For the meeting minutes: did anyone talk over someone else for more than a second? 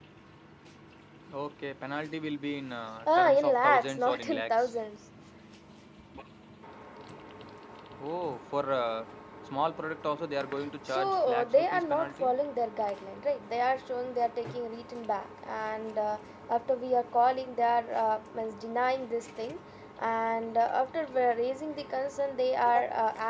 Yes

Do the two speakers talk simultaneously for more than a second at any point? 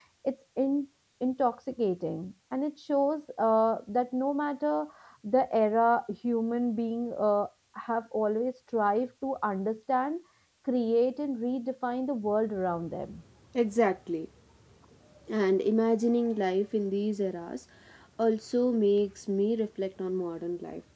No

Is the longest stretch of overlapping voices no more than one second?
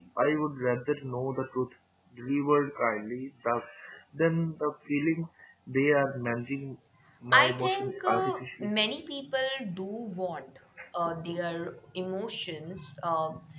No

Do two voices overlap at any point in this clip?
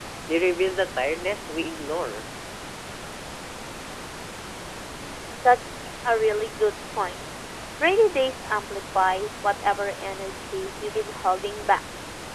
No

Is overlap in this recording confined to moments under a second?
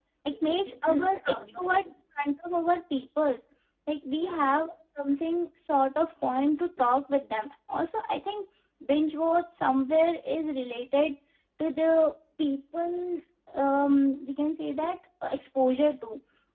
No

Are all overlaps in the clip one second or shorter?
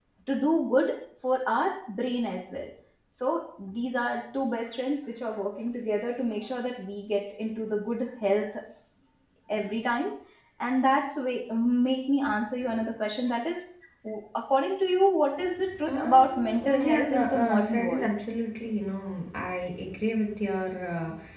No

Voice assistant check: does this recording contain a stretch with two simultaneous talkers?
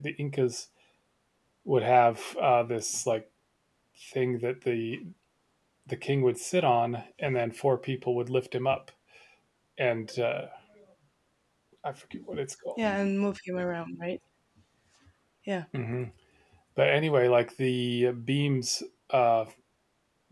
No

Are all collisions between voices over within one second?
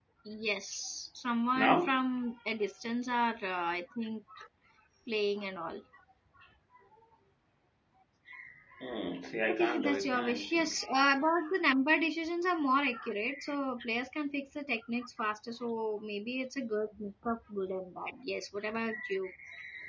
No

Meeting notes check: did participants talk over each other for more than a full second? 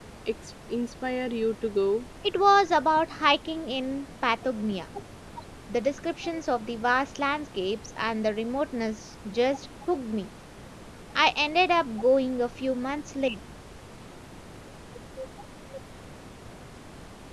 No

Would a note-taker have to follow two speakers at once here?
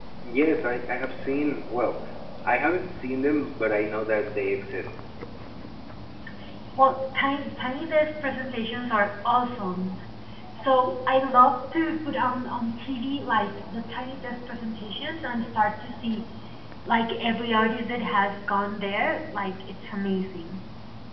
No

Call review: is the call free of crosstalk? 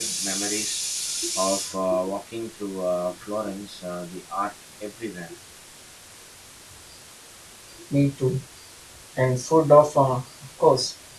Yes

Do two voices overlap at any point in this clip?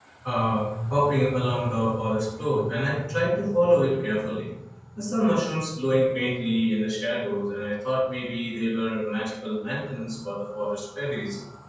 No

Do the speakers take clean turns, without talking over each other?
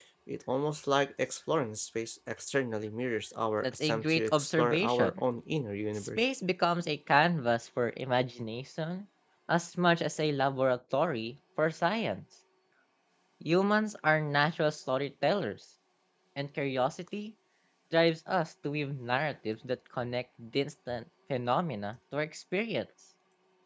No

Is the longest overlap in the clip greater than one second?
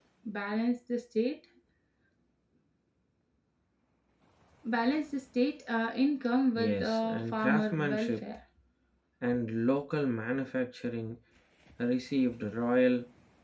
Yes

